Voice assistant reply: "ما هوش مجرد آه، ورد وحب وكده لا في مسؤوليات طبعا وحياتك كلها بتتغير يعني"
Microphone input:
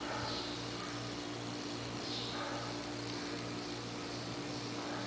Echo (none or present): none